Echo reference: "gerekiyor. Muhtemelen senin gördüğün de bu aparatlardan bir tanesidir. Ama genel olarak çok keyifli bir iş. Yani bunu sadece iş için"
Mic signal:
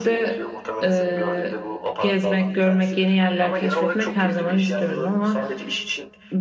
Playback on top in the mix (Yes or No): No